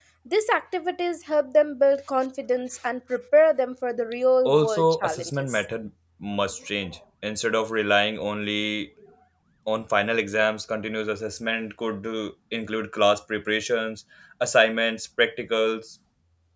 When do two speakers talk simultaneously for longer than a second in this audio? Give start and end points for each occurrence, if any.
4.5-5.7

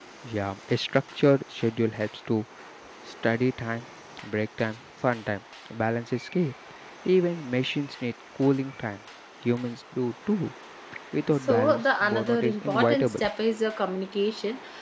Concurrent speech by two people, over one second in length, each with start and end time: 11.4-13.2

